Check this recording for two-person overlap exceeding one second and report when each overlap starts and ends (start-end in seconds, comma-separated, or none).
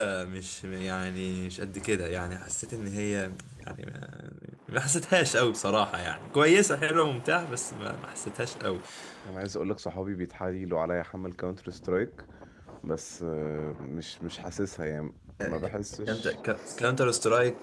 none